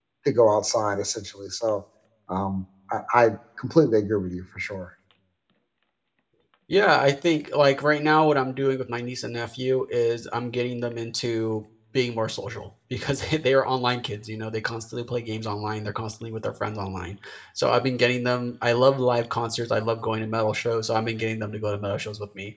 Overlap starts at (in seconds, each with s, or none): none